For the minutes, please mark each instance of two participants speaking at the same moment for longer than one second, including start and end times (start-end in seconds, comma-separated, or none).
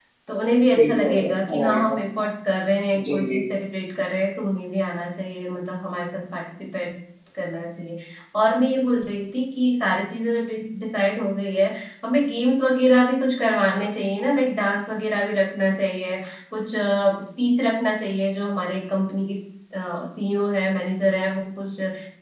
0.8-2.0